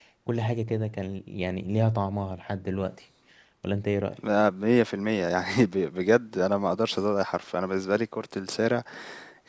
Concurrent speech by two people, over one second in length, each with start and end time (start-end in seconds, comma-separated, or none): none